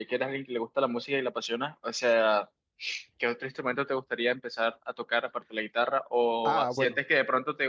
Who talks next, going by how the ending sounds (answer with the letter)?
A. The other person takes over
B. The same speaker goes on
B